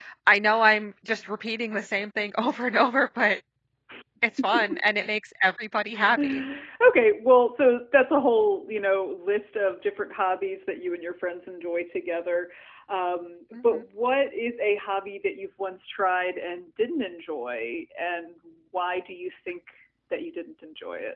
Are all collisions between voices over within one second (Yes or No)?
Yes